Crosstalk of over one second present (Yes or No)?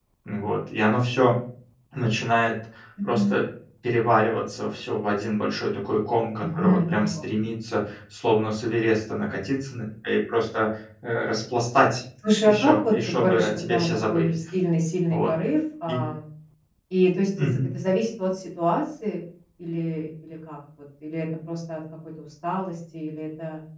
Yes